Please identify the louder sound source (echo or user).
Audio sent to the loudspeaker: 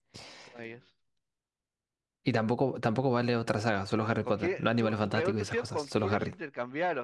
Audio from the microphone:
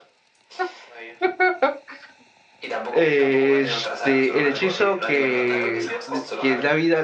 user